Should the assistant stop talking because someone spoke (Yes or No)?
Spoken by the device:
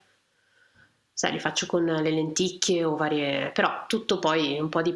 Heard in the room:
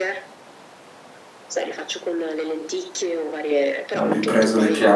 Yes